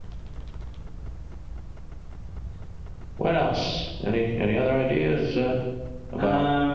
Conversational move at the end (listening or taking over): listening